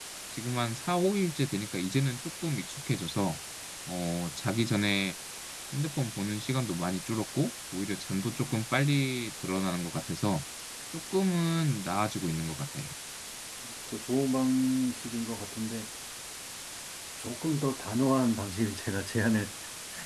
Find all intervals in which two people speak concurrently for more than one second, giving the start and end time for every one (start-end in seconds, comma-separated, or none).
none